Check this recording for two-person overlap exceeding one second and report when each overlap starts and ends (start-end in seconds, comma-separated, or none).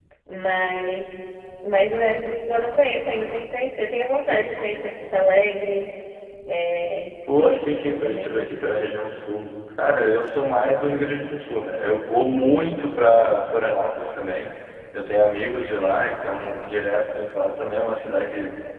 7.4-8.9